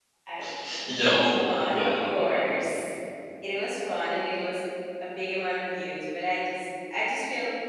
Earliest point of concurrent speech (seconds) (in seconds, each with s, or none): 1.0 s